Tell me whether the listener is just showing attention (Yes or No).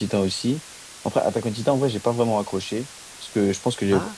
Yes